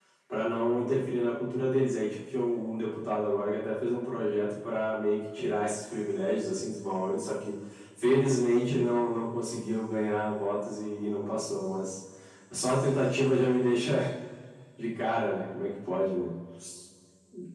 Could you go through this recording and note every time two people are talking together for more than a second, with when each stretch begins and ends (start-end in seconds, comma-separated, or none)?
none